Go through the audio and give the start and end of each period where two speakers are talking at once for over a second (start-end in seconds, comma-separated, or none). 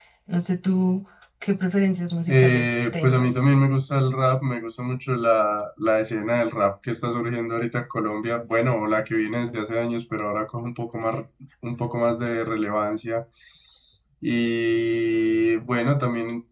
2.3-3.6